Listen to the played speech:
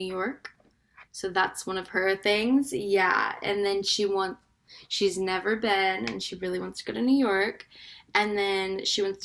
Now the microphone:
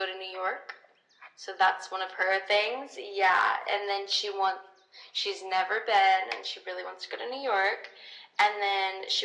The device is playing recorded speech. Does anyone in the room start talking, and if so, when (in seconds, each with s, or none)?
none